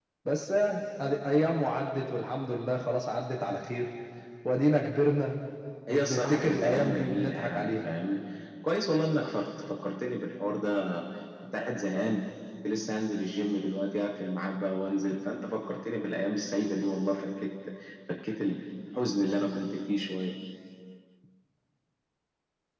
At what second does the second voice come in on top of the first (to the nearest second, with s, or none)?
6 s